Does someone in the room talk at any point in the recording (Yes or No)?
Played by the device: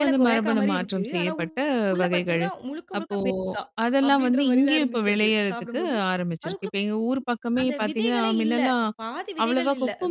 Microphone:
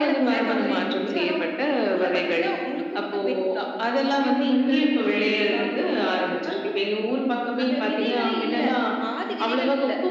No